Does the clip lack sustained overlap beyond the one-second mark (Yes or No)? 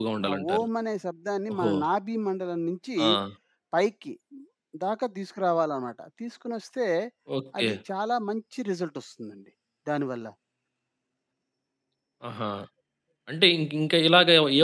Yes